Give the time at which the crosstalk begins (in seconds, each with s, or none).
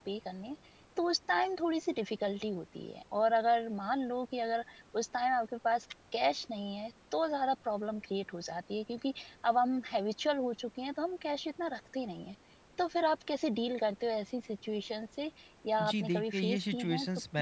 15.8 s